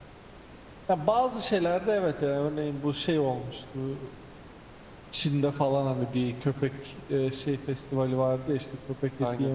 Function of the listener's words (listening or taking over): listening